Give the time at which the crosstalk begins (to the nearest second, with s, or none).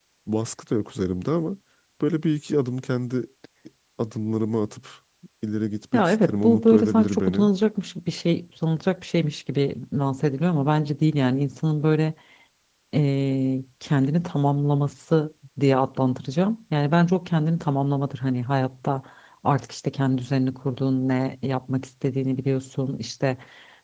6 s